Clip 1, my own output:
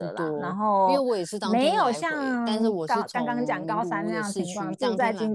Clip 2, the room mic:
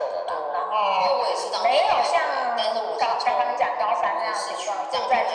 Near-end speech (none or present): none